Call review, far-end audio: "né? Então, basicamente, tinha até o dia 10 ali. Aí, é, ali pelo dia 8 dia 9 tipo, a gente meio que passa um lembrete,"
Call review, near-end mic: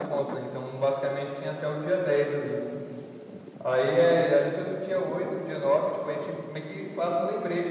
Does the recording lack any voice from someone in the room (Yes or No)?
Yes